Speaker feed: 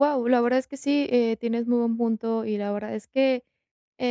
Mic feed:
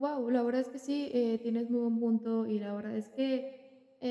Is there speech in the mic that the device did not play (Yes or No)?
No